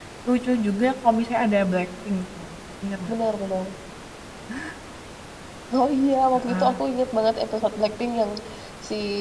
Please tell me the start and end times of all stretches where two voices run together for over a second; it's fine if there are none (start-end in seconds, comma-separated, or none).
none